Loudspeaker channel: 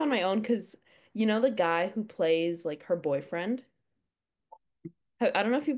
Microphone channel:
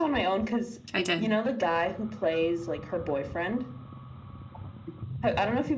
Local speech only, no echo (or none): I did.